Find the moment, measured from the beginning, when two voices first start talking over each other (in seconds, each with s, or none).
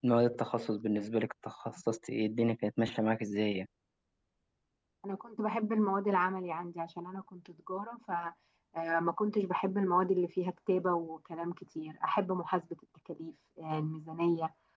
none